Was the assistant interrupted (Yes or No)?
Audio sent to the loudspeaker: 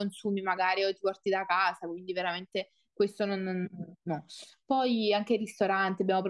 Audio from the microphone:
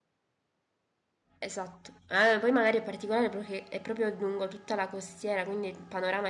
Yes